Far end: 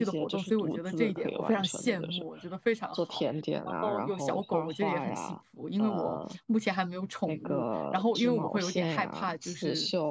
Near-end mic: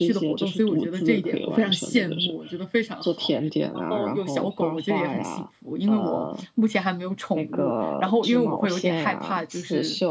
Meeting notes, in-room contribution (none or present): none